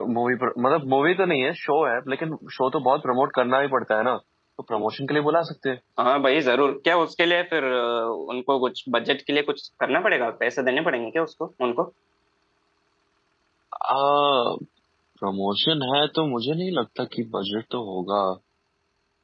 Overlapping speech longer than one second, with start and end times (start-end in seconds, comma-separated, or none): none